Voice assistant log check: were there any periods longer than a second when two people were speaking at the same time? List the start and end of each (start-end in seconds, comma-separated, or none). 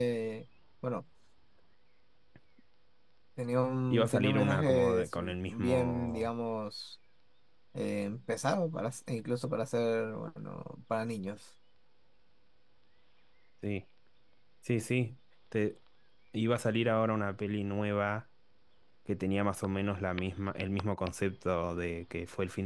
3.9-6.3